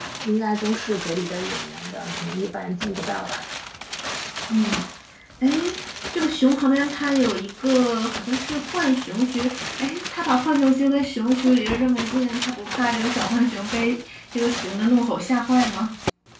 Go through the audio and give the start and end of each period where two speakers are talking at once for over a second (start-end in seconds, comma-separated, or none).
none